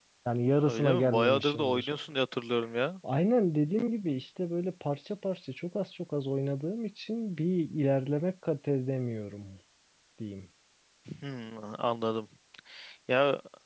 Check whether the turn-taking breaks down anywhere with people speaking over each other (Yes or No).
Yes